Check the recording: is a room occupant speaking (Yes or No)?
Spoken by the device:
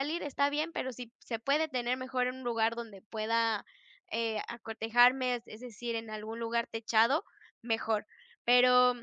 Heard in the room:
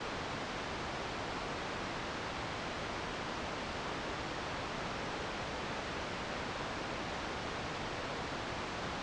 No